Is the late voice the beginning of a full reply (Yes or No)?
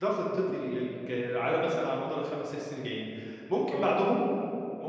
No